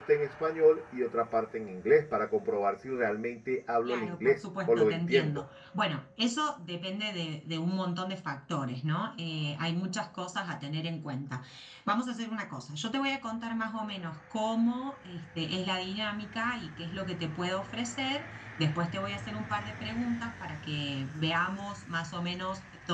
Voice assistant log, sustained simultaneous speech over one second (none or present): present